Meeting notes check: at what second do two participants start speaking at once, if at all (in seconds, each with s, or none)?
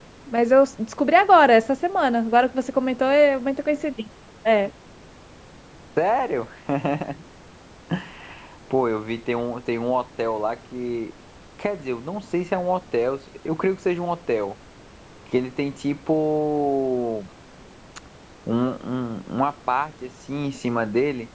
none